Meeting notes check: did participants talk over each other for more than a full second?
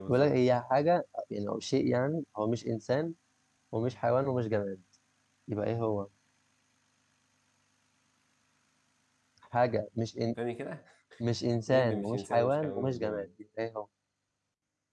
Yes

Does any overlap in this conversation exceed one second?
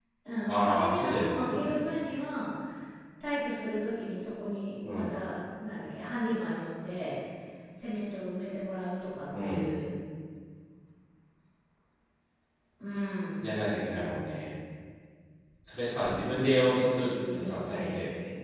Yes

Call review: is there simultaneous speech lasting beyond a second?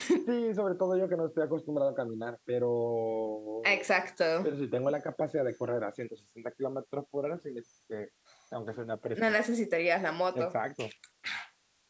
No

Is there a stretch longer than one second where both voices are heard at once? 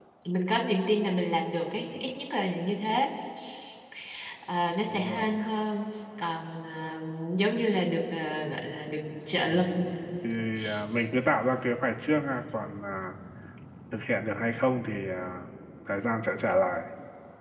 No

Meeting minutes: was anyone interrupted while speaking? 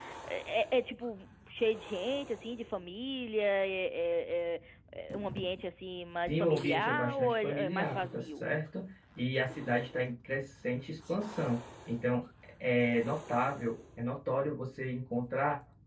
Yes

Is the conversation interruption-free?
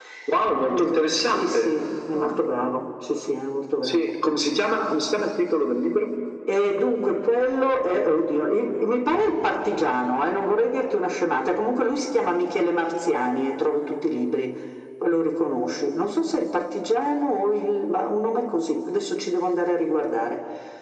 No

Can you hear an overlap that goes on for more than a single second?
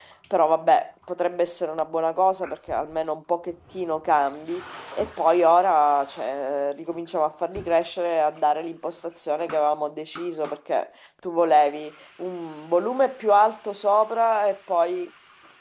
No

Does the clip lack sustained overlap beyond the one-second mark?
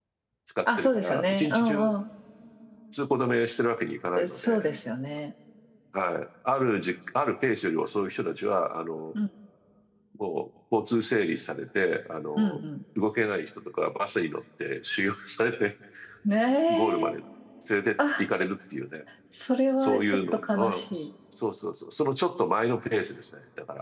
No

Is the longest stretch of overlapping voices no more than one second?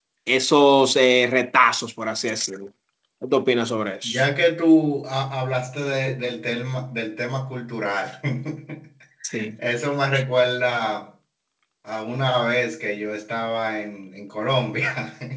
Yes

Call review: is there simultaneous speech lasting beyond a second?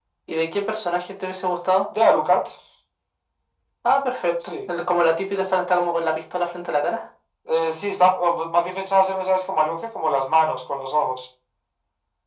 No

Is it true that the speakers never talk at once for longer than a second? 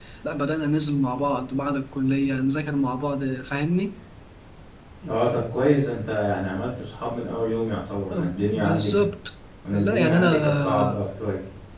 No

